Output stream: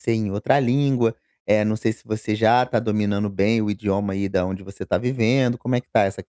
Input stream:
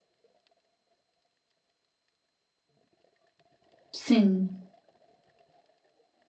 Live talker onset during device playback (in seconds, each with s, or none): 3.9 s